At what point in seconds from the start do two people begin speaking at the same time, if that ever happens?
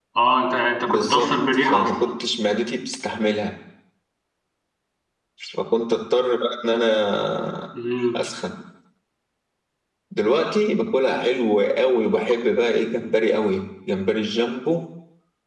0.8 s

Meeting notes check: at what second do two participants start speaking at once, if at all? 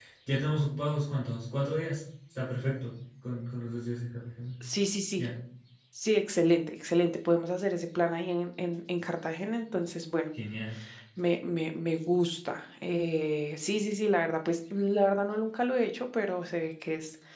none

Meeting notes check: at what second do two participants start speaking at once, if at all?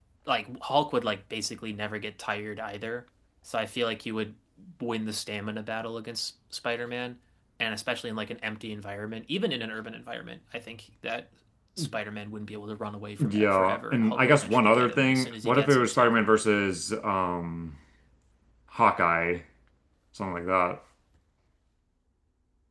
13.2 s

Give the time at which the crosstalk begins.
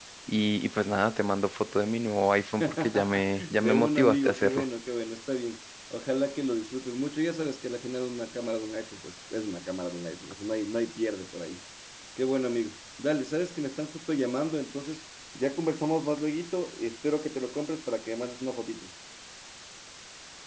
2.6 s

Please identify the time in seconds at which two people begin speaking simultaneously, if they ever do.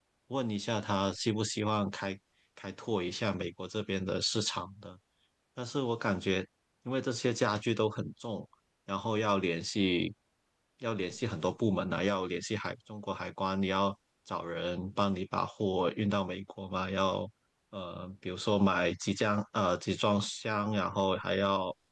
none

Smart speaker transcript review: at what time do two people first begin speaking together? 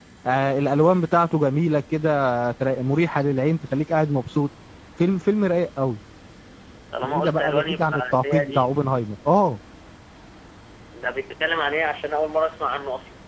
7.0 s

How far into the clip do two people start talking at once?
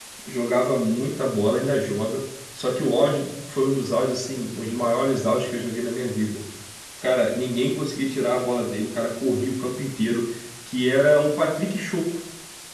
none

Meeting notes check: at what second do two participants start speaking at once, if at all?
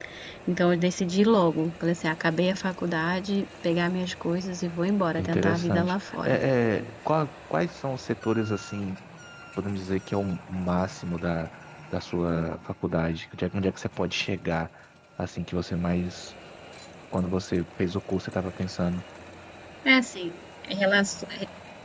5.2 s

